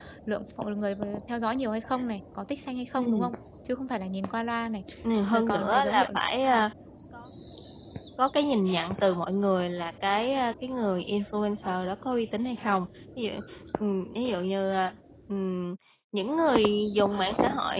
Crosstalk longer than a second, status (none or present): present